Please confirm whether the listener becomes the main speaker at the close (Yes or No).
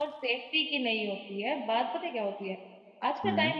No